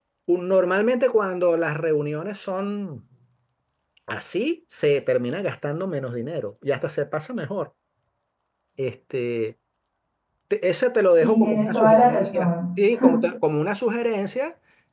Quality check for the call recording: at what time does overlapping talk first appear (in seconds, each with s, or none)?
11.2 s